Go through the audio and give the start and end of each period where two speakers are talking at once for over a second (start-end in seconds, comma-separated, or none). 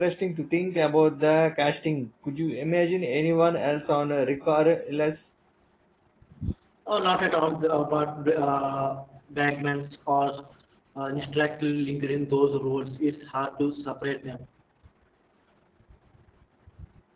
none